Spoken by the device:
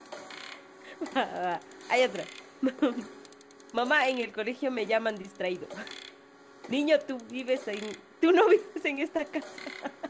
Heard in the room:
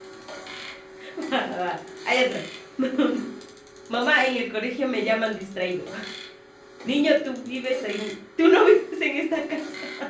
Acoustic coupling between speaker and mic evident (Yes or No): Yes